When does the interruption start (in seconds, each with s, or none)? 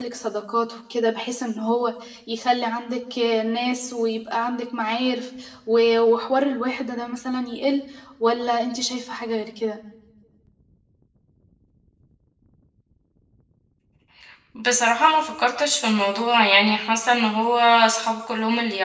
none